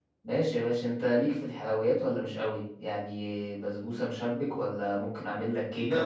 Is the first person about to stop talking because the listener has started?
Yes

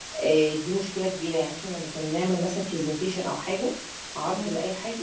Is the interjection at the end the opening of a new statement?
No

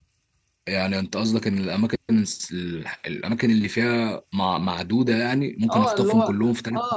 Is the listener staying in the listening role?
No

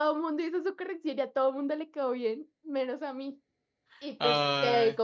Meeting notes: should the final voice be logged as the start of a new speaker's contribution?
No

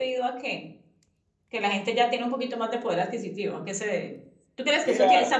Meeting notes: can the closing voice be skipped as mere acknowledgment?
Yes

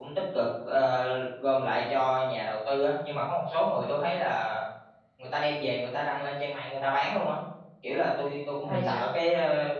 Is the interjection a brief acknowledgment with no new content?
Yes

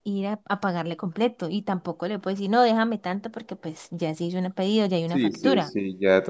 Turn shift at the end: Yes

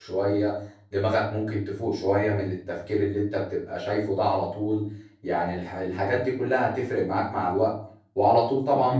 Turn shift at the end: No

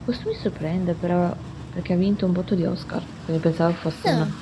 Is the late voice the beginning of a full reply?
No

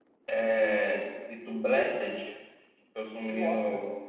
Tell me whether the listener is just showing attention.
Yes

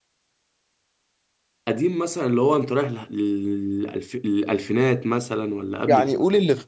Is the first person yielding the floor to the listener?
Yes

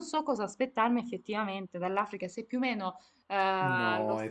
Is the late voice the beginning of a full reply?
Yes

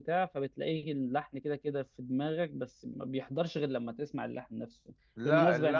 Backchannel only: Yes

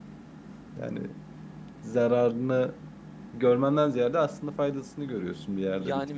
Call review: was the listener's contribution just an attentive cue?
No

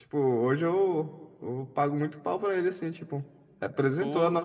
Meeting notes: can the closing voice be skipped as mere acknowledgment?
Yes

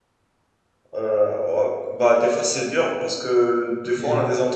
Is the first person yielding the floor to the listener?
No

